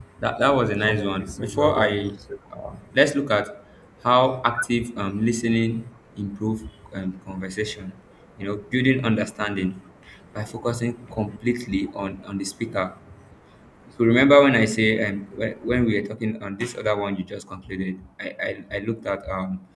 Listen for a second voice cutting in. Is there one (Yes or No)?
Yes